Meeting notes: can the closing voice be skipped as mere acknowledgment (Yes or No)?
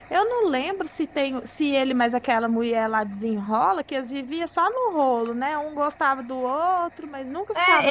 No